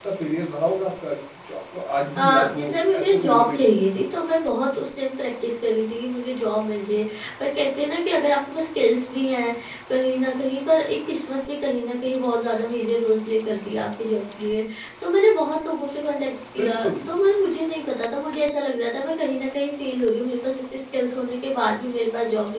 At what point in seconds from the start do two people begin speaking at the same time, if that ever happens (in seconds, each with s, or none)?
2.2 s